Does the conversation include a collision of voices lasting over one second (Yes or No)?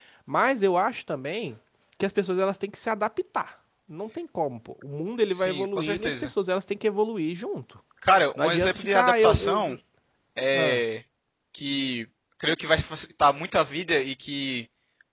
Yes